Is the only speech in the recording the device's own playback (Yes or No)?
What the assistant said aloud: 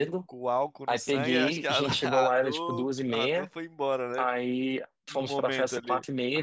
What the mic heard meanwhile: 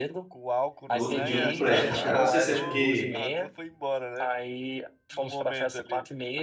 No